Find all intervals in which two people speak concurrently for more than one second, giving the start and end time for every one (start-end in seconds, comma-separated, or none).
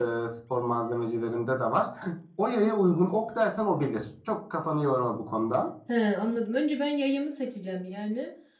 none